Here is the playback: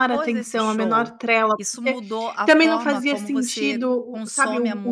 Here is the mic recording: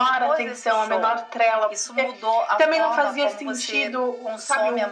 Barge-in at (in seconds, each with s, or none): none